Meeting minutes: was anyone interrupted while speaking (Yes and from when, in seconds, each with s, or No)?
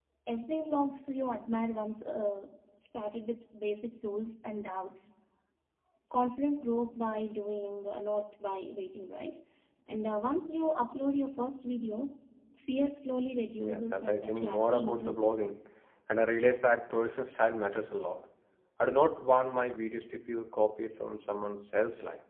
Yes, from 13.6 s